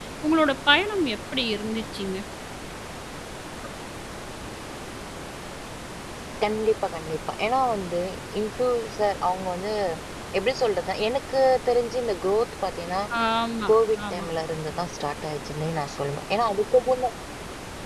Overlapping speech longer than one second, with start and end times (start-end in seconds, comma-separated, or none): none